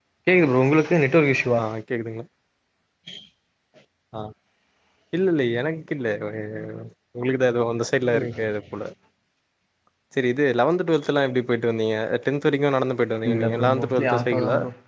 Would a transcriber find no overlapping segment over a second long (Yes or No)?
No